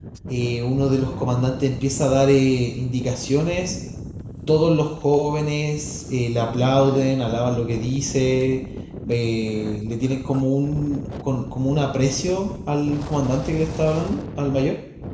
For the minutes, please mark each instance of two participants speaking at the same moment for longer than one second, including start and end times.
none

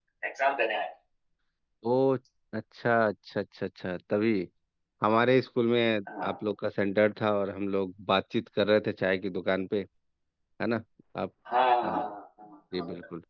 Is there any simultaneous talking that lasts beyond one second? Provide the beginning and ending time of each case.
none

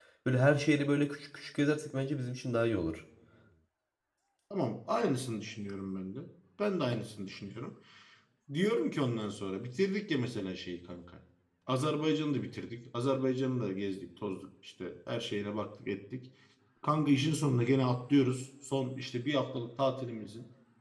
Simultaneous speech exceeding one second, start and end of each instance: none

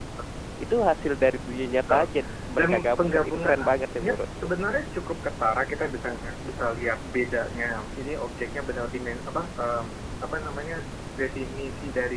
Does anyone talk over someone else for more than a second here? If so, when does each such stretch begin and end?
2.6-4.5

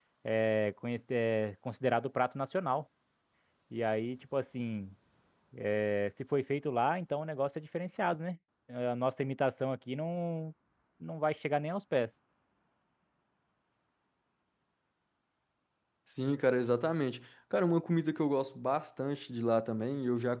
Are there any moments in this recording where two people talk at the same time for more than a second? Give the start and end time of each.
none

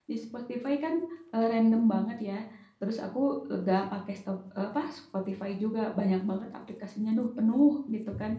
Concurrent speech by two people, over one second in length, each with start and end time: none

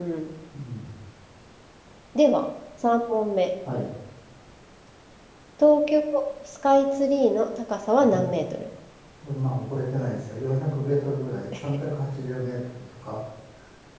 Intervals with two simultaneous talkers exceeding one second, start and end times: none

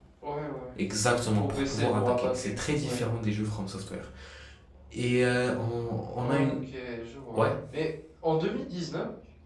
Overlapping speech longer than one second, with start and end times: 1.4-3.0

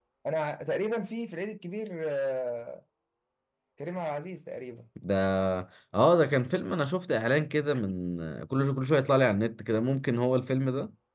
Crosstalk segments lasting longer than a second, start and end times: none

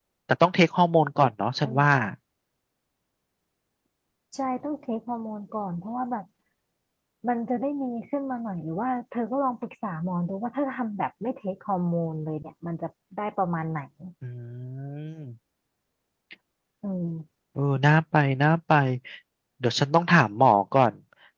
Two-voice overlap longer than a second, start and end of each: none

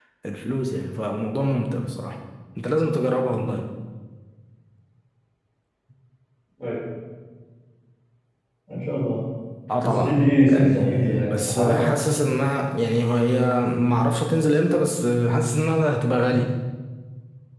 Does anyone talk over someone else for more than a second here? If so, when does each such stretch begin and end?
9.8-11.8

